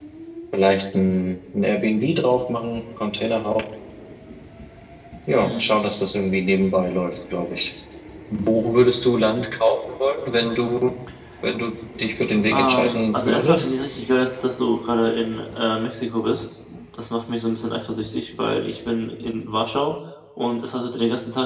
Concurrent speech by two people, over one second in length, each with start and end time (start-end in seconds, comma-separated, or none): 12.5-13.7